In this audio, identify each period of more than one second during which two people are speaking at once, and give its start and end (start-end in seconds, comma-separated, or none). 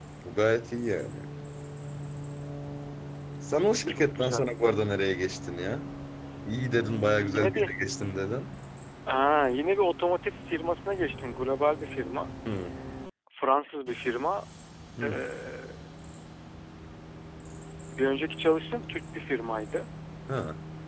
none